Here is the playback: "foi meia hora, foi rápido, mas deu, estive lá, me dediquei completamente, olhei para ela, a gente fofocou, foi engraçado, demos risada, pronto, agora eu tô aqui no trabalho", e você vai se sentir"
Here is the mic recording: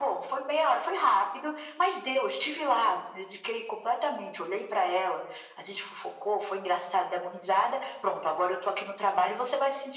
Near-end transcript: none

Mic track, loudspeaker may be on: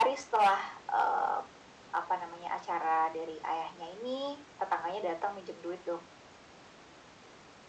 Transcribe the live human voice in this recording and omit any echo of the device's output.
none

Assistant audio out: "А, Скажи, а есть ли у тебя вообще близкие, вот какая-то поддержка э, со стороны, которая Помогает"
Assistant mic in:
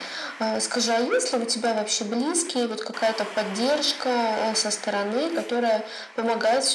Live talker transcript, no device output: none

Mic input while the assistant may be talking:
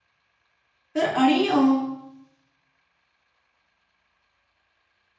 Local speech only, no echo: तर आणि अ,

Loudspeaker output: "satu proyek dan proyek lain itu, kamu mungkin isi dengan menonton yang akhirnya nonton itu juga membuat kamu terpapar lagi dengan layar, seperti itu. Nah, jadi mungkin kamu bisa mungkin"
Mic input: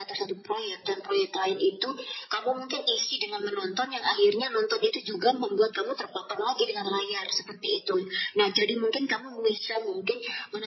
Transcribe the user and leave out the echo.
none

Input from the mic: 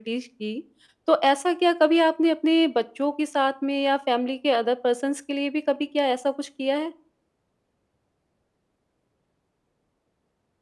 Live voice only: none

